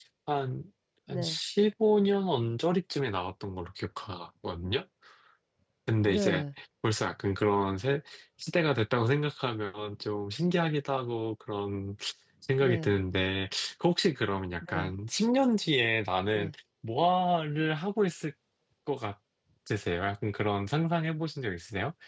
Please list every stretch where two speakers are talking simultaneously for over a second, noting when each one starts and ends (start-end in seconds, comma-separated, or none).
none